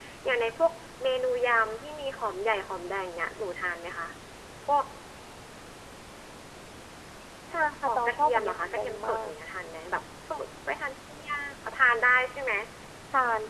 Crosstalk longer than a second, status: present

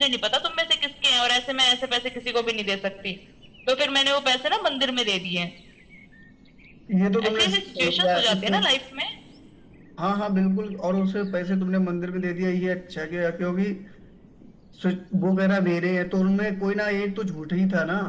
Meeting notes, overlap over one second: present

